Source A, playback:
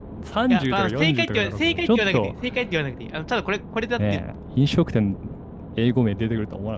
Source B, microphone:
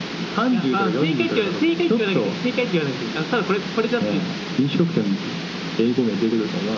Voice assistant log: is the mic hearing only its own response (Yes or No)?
Yes